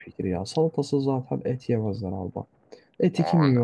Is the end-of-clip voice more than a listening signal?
No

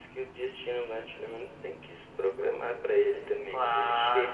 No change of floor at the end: No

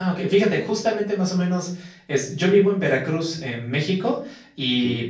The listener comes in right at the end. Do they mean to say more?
No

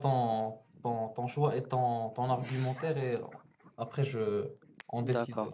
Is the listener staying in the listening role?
No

